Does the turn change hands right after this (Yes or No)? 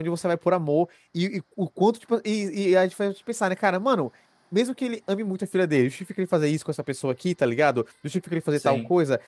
No